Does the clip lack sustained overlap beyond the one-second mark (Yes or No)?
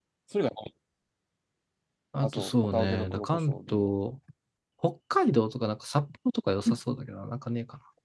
No